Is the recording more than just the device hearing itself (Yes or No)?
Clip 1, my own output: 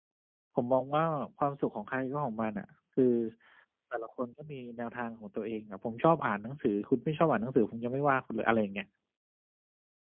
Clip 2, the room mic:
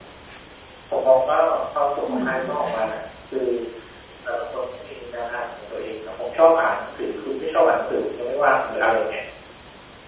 Yes